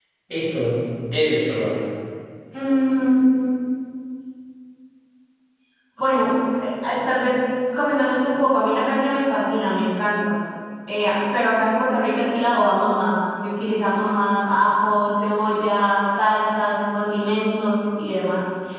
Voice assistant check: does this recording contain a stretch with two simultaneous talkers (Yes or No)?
No